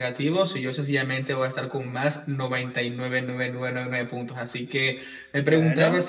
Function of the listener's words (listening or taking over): listening